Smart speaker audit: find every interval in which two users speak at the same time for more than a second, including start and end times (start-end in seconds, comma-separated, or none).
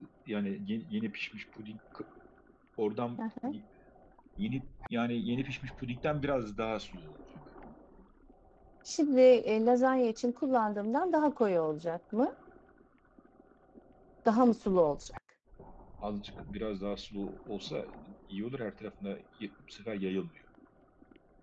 none